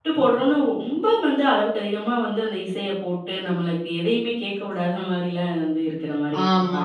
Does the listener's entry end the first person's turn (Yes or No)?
Yes